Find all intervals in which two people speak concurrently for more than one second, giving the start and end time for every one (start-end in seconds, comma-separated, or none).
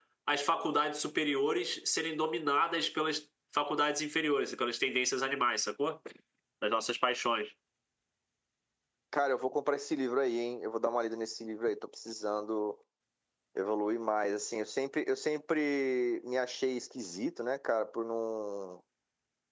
none